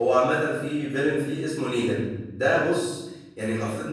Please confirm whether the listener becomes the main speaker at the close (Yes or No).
No